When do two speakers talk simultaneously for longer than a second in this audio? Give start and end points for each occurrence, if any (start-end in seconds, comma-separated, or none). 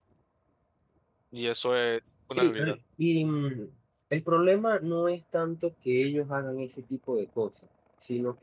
none